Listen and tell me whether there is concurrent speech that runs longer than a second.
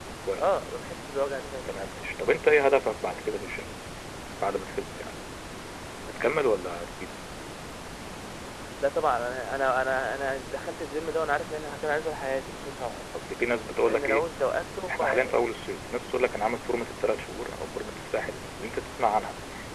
No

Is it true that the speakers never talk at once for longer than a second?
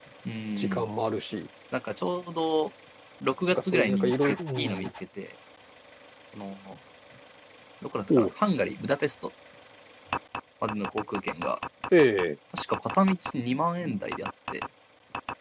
No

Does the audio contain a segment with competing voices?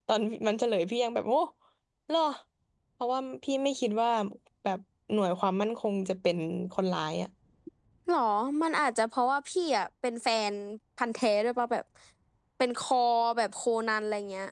No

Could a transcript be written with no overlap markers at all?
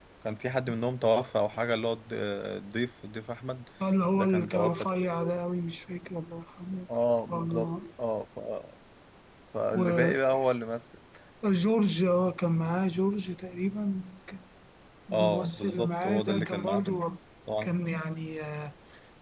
No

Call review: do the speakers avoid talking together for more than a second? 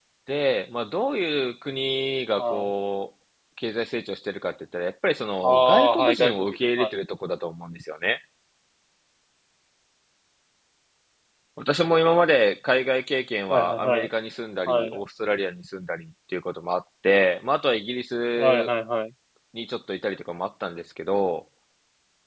No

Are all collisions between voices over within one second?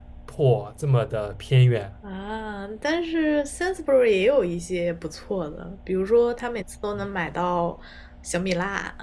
Yes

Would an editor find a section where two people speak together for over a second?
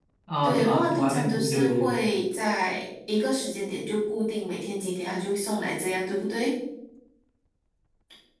Yes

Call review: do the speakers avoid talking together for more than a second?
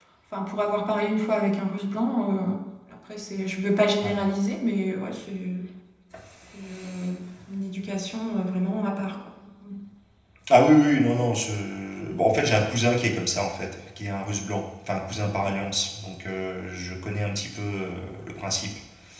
Yes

